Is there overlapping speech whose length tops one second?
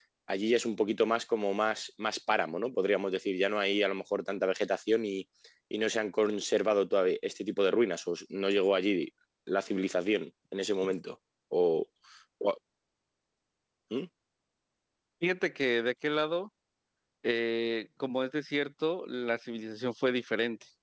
No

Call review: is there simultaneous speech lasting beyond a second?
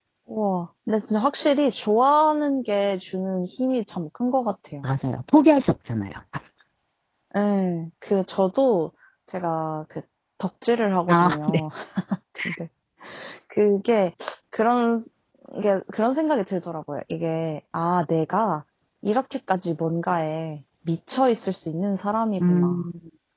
No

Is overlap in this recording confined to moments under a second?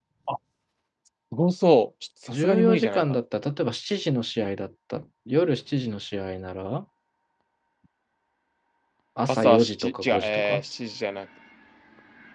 No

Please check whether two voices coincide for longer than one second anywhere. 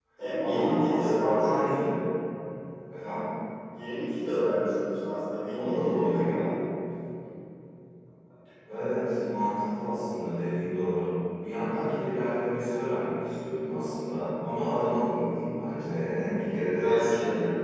Yes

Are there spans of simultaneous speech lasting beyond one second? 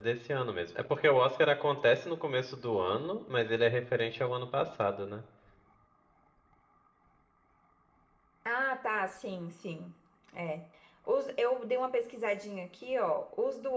No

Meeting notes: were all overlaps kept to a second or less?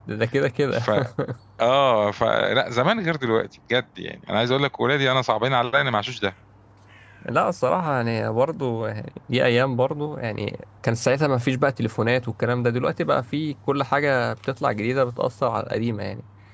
Yes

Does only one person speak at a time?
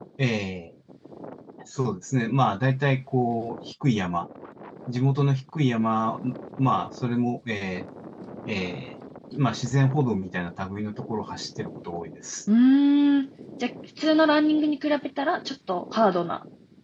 Yes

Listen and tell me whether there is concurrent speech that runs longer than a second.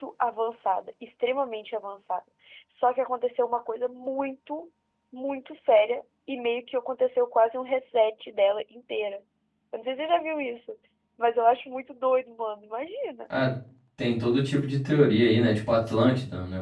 No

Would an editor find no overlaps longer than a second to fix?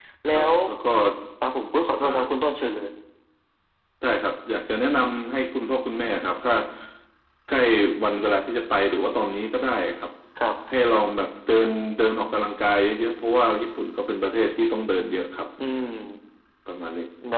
Yes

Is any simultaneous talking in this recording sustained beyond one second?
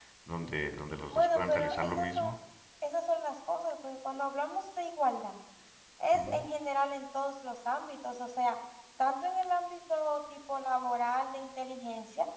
Yes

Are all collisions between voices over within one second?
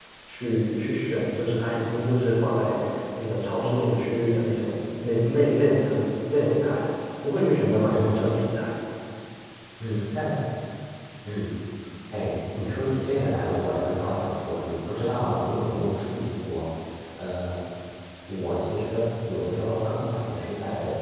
Yes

